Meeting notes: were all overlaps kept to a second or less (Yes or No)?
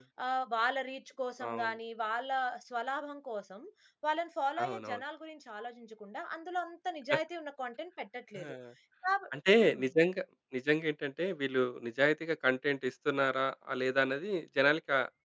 Yes